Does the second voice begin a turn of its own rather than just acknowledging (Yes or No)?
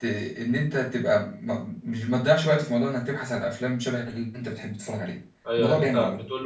Yes